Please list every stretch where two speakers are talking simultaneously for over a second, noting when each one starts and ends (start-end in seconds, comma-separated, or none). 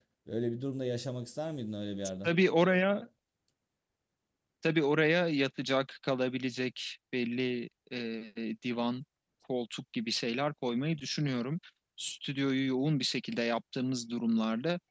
none